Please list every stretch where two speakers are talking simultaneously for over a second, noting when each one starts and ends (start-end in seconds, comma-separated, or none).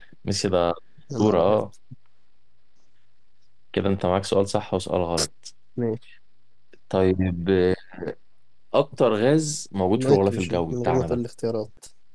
10.0-11.2